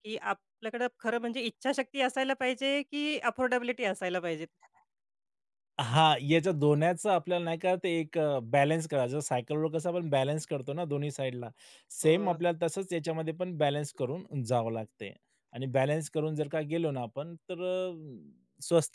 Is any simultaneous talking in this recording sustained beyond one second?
No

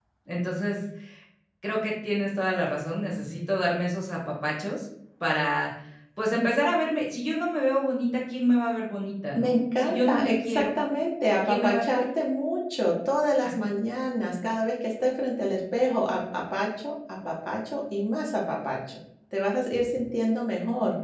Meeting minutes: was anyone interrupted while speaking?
Yes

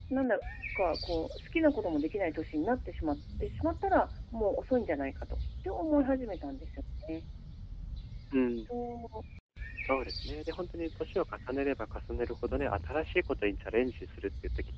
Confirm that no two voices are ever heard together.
Yes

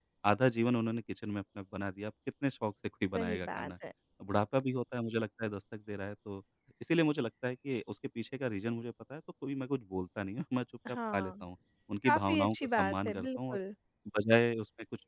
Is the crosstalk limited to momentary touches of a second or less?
No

